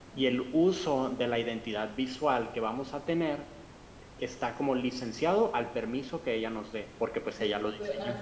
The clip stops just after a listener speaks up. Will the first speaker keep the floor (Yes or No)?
No